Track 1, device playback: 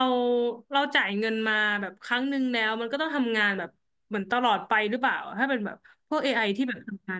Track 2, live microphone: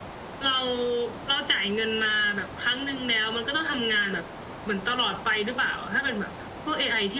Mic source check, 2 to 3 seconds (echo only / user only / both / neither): echo only